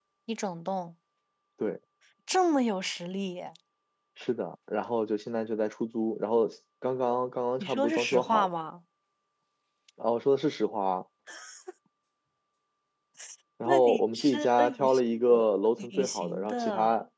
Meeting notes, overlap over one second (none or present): present